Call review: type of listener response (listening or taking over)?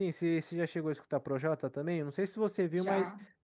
listening